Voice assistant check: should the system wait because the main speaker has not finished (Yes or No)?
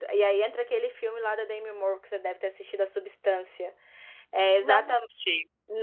Yes